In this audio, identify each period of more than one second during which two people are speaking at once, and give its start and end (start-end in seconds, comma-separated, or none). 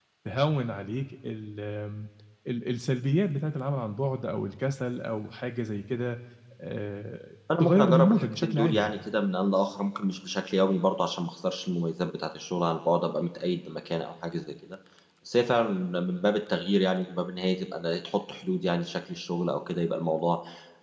7.6-8.9